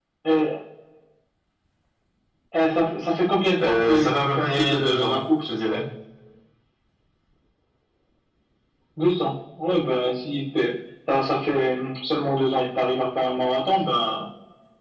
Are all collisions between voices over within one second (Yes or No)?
No